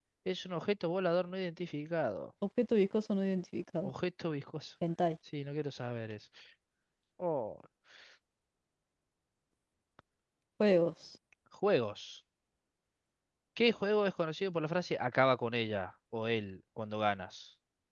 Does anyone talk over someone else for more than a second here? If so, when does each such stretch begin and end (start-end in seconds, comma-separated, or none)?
none